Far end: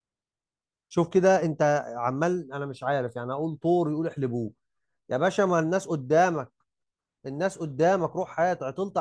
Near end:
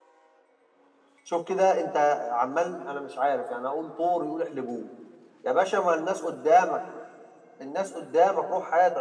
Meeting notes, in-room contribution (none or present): none